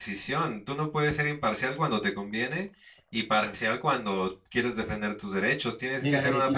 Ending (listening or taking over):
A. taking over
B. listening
A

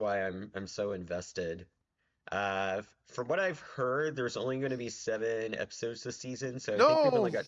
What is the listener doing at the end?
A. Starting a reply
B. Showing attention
B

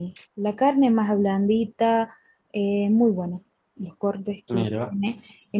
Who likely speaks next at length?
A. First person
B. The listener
A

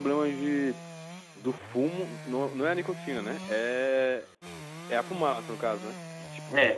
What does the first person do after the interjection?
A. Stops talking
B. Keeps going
A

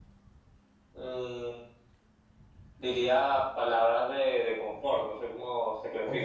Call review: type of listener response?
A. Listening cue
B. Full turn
B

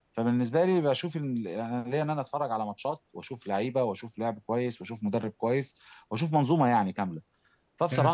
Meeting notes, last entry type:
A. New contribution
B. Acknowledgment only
B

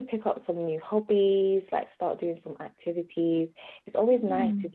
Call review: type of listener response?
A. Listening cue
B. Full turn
A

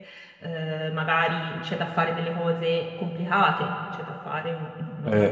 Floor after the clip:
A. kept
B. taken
A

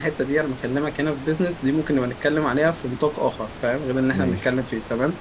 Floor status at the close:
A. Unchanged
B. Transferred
A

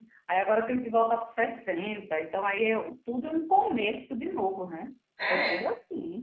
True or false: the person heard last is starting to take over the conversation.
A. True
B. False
A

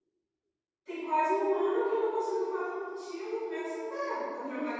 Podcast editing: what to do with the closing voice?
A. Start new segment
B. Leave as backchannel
A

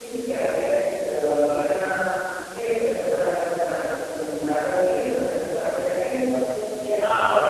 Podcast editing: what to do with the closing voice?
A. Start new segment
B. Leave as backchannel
B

